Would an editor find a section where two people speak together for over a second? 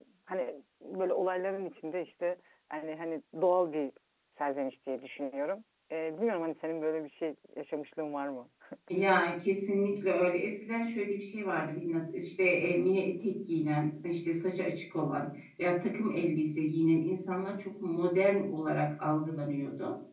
No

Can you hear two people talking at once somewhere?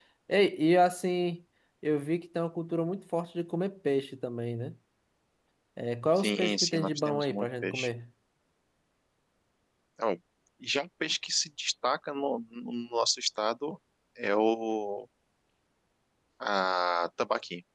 Yes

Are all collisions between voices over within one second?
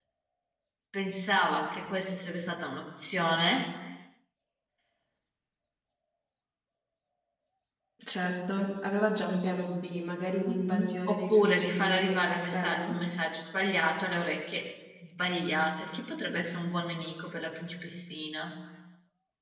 No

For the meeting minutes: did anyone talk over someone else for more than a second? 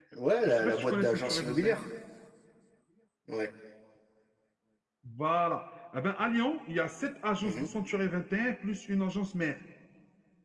Yes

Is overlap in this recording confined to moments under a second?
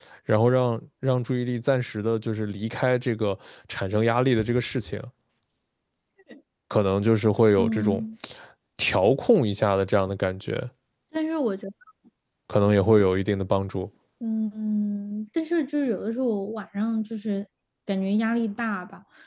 Yes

